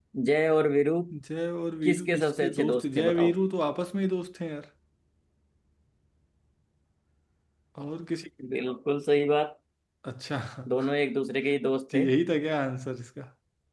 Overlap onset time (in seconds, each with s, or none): 1.9 s